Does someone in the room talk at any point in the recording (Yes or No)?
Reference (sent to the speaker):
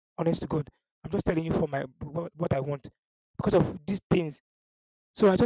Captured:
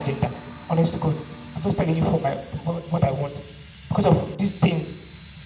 No